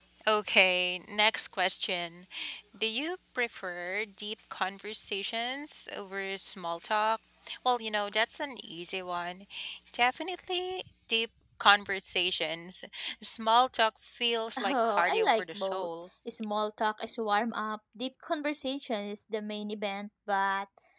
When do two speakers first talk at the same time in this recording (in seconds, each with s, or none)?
14.6 s